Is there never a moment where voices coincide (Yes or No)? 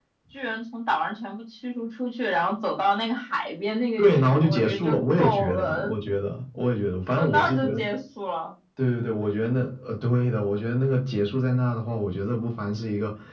No